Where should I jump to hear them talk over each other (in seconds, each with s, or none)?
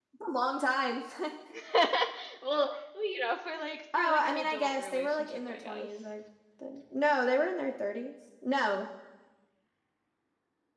3.9 s